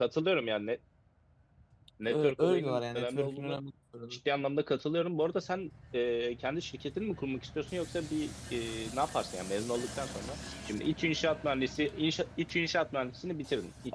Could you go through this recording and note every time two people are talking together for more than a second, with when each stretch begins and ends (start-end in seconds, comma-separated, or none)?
2.0-3.6